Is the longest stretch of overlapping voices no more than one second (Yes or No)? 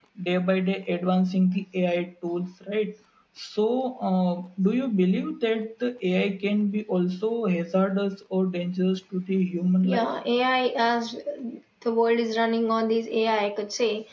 Yes